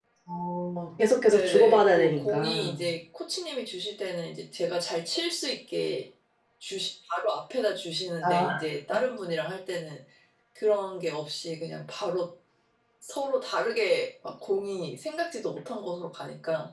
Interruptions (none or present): present